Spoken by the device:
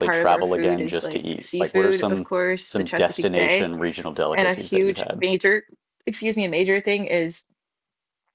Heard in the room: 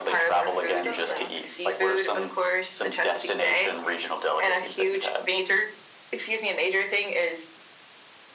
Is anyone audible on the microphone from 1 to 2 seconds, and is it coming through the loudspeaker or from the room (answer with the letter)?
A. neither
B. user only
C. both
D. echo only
C